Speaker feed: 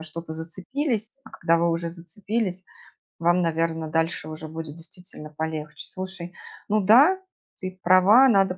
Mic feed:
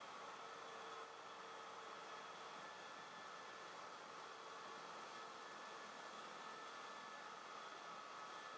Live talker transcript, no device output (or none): none